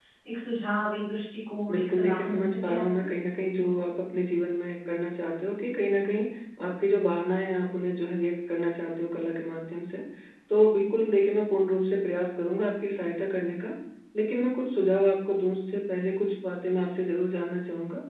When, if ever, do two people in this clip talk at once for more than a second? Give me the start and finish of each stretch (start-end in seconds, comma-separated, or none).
1.7-3.1